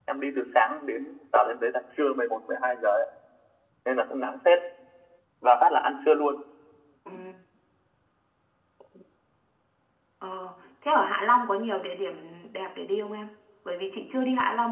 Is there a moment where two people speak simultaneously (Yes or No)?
No